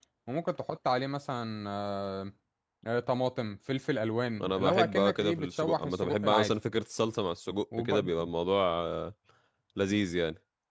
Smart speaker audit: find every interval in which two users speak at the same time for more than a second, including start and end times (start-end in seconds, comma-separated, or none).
4.4-6.5